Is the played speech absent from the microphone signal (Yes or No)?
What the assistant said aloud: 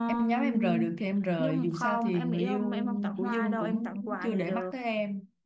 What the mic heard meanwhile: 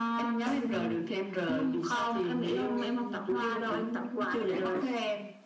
No